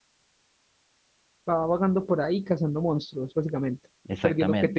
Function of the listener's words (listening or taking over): taking over